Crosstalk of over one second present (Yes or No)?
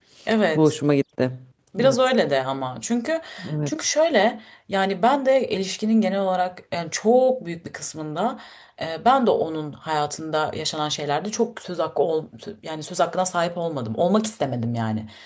No